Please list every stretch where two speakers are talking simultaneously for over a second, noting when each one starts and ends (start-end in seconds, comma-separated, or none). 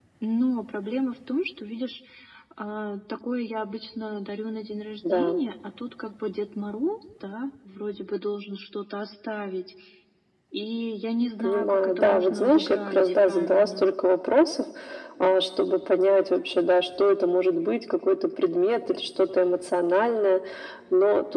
11.4-13.9